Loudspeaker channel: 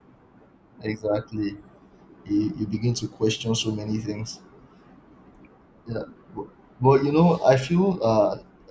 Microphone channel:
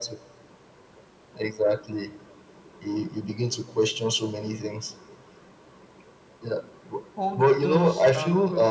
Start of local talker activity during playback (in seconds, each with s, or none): 7.1 s